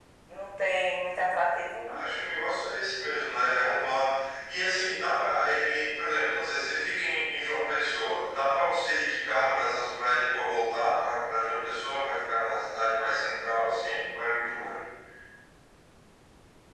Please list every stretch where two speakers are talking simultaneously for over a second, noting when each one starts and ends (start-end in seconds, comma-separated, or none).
none